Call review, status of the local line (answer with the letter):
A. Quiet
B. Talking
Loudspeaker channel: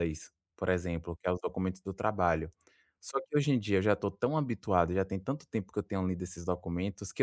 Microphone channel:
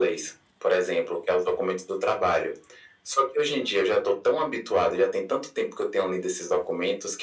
A